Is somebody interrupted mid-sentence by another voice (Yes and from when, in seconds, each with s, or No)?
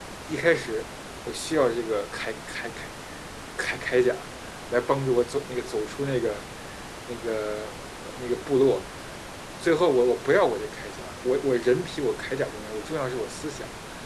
No